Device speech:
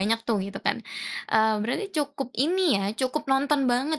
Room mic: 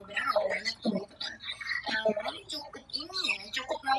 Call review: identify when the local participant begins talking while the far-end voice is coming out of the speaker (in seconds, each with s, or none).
none